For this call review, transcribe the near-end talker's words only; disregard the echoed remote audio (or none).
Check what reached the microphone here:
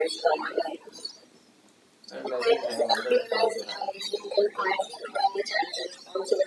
And I think I have another point to add in this because I